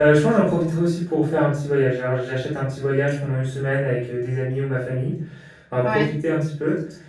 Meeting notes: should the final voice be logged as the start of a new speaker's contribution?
No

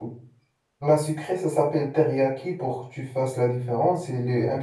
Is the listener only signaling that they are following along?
Yes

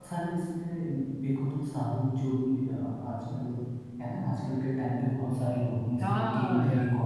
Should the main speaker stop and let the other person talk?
Yes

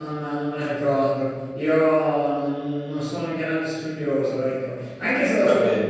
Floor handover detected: No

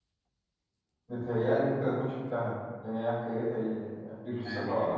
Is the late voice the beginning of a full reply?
Yes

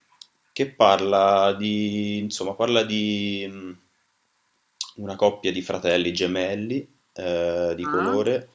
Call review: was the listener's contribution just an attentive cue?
Yes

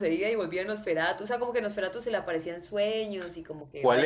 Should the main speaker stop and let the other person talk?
Yes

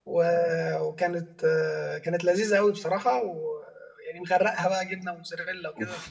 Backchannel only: No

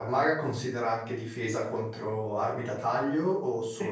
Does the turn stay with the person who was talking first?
No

